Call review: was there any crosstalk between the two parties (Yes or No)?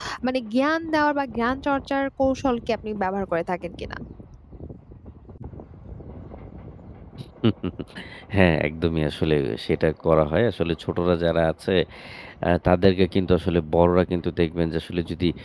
No